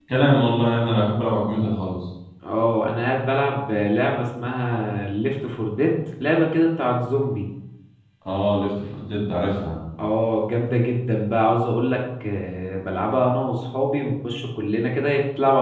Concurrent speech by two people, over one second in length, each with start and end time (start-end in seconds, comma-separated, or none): none